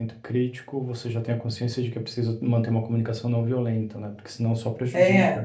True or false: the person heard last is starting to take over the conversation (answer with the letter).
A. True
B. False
A